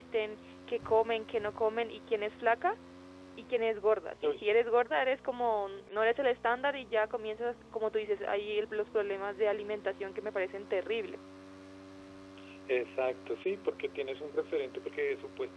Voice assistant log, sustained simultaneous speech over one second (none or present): none